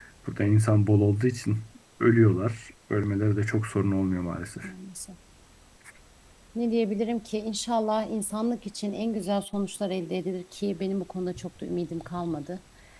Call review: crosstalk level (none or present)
none